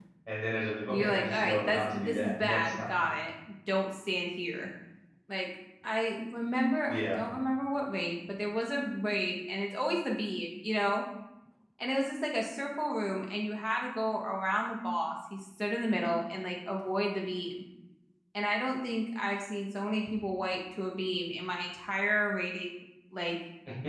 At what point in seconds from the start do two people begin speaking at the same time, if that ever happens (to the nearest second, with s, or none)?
1 s